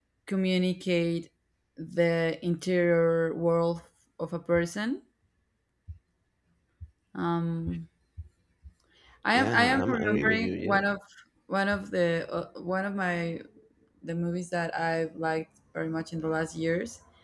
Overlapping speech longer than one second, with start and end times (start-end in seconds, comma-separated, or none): 9.3-10.9